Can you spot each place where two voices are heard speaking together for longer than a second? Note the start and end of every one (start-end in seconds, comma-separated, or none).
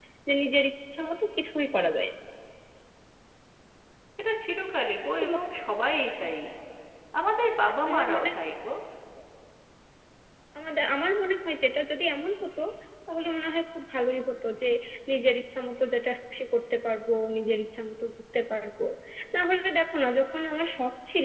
none